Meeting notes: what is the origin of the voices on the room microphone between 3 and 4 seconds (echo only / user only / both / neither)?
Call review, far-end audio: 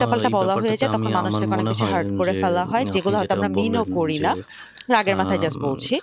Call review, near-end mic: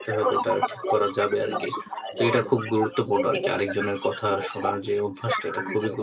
both